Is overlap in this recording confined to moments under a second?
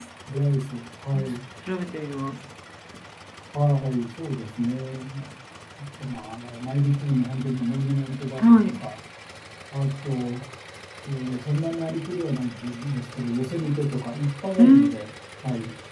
Yes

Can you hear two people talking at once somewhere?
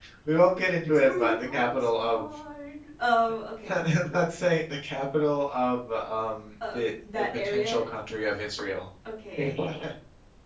Yes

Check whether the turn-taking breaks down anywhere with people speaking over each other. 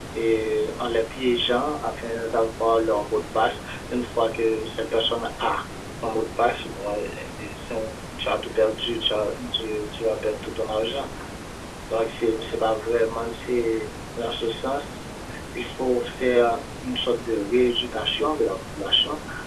No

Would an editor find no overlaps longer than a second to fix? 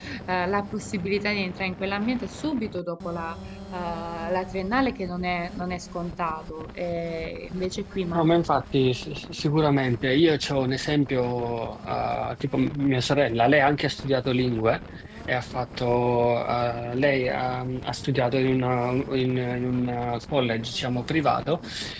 Yes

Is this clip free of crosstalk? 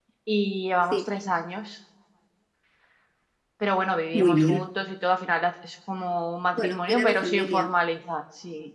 No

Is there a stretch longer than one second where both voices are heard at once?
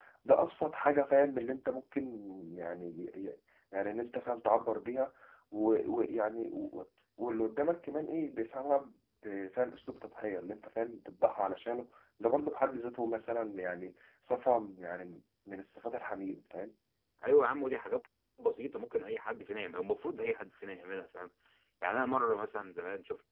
No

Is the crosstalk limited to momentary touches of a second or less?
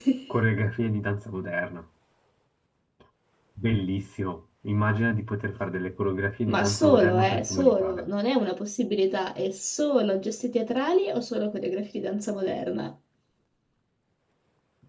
No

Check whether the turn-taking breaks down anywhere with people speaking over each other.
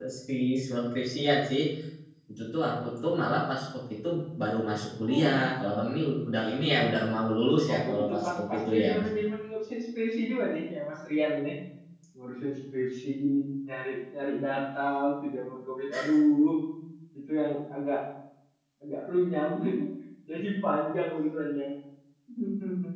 Yes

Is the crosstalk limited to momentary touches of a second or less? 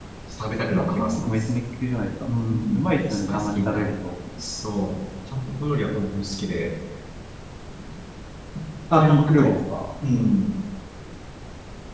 No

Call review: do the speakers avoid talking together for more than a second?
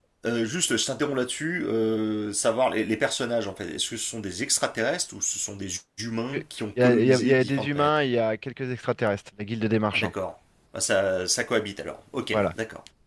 No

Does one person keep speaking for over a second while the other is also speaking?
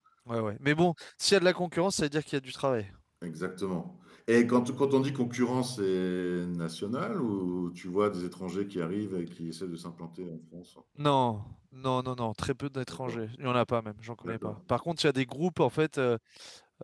No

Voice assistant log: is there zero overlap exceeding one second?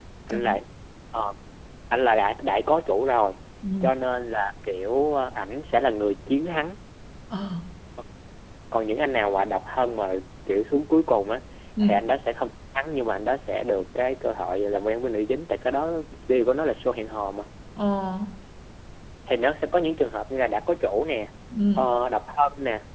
Yes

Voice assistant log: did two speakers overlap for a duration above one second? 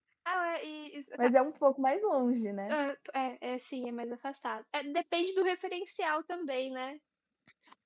No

